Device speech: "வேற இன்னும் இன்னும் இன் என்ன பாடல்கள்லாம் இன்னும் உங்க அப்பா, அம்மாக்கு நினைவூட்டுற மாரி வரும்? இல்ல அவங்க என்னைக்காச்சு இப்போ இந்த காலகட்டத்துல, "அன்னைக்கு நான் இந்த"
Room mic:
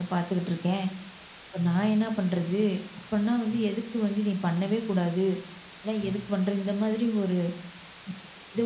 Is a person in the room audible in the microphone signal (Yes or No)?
Yes